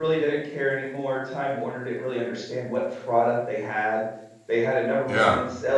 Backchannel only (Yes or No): Yes